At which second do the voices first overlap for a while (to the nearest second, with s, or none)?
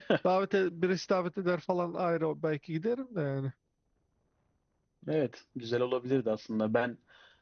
none